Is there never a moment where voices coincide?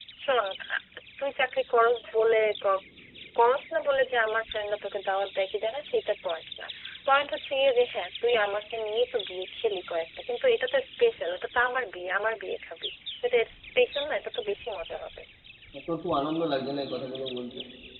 Yes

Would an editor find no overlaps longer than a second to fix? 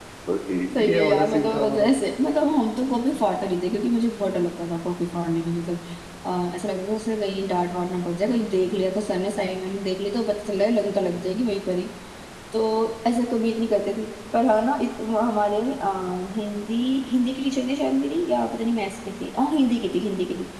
No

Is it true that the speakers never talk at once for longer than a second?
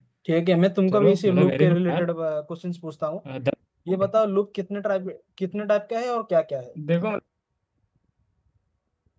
No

